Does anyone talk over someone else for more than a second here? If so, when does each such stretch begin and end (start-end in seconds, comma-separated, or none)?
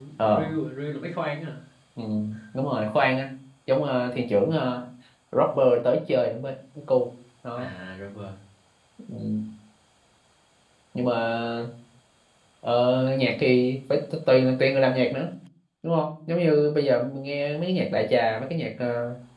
none